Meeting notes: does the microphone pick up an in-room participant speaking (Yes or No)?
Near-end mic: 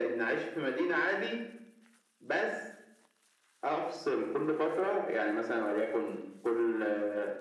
No